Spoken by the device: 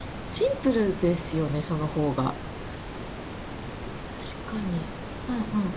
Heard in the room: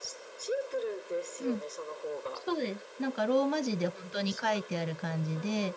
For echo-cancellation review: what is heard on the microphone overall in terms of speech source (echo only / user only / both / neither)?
both